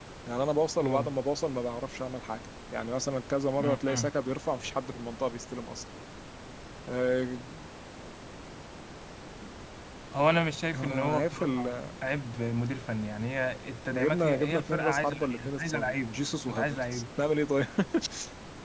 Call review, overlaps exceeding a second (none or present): present